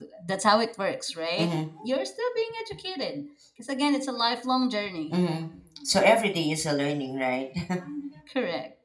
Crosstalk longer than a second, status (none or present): none